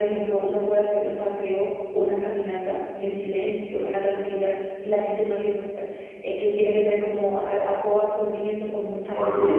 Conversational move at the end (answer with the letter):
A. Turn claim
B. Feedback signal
A